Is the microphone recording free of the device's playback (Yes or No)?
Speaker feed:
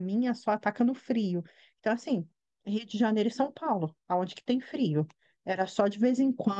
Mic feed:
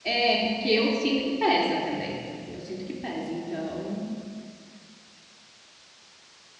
Yes